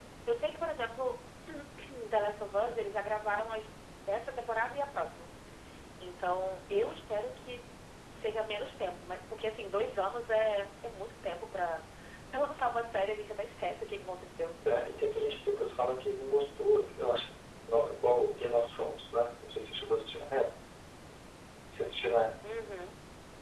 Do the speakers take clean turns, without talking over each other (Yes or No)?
Yes